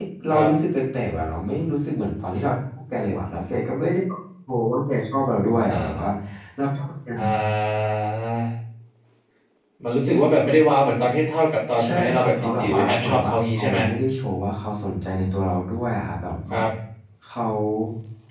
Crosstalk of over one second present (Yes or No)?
Yes